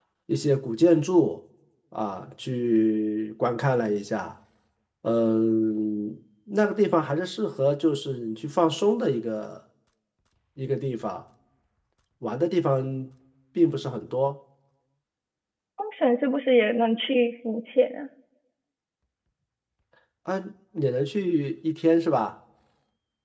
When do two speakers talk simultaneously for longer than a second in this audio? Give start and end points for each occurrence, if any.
none

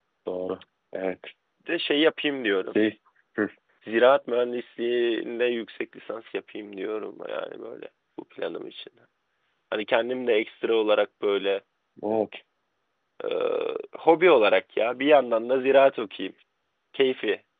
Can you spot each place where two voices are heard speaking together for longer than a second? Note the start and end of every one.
none

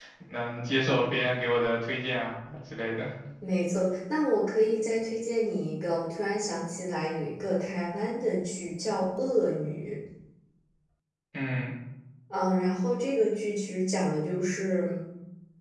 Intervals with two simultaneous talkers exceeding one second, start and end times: none

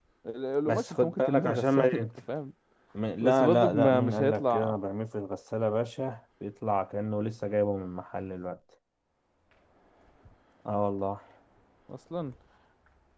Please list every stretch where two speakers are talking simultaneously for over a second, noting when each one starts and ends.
0.7-2.0, 3.2-4.7

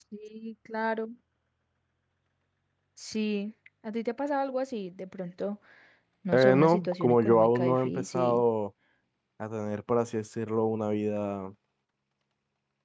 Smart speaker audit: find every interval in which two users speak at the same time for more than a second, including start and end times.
6.3-8.4

